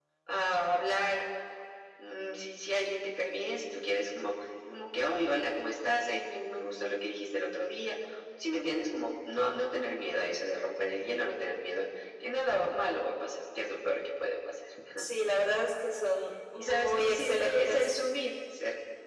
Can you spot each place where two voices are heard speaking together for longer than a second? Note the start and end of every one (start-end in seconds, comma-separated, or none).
16.6-17.9